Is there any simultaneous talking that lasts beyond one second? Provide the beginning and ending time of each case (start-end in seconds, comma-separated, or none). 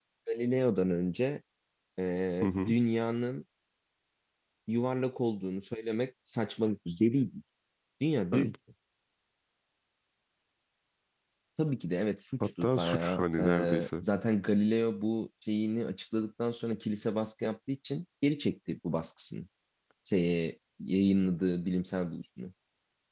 12.4-14.0